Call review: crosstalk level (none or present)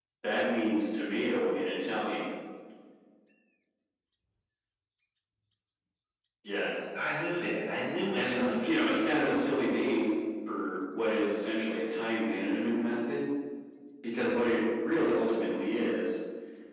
present